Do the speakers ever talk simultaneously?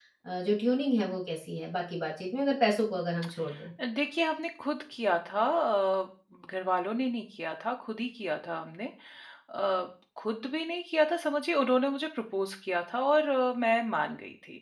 No

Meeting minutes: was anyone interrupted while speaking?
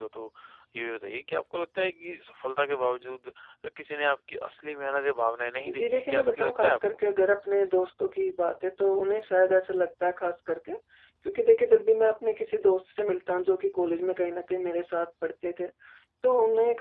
Yes, from 5.7 s

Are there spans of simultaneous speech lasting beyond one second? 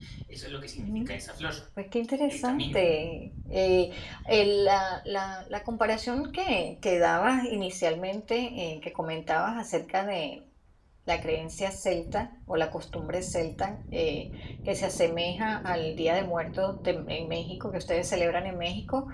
No

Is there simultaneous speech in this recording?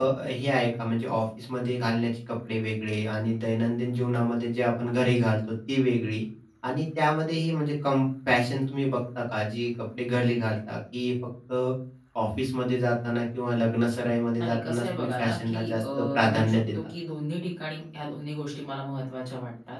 Yes, from 14.4 s

